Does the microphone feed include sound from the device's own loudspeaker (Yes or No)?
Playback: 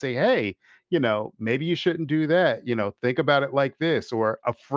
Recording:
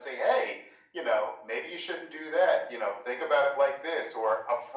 Yes